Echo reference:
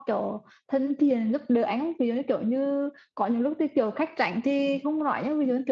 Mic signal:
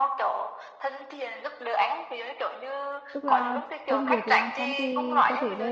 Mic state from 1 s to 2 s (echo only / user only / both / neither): echo only